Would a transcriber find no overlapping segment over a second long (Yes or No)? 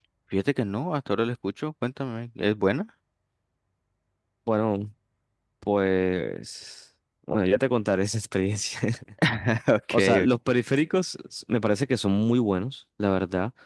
Yes